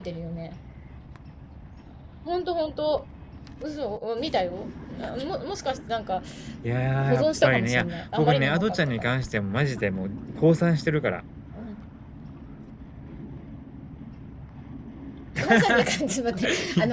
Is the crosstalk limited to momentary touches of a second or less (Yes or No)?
No